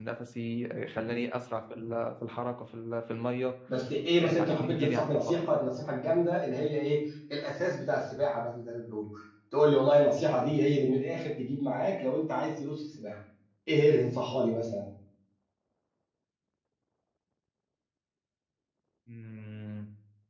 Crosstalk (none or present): present